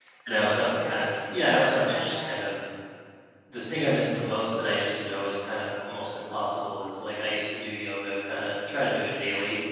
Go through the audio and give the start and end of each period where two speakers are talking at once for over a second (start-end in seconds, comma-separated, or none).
0.9-2.3